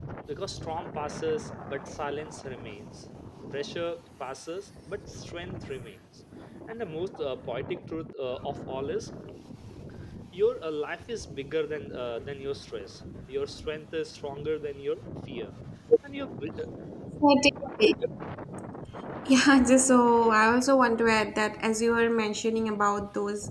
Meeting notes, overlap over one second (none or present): none